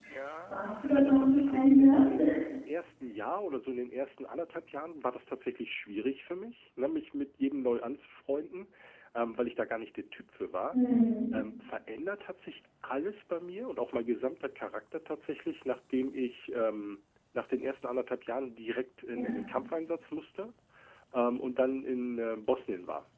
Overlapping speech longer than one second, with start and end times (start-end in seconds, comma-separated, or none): 0.9-2.2